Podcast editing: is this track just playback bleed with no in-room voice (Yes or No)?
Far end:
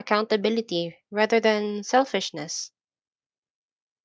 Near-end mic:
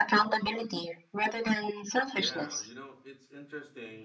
No